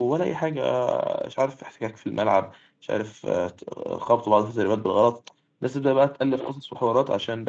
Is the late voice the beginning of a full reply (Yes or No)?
No